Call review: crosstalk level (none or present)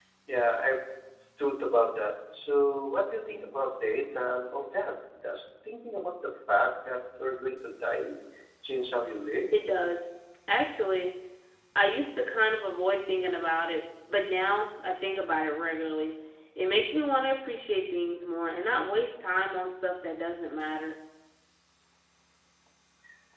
none